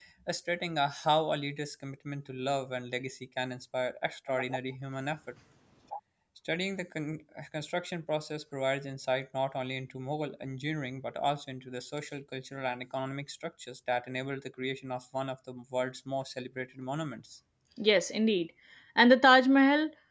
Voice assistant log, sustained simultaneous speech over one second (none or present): none